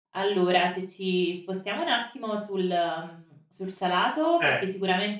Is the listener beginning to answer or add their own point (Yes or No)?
No